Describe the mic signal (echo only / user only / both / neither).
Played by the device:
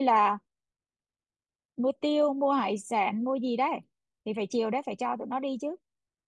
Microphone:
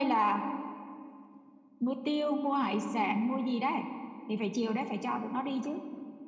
echo only